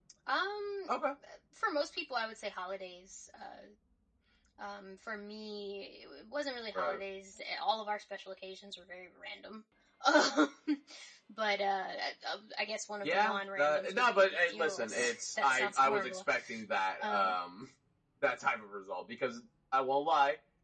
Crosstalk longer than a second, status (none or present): present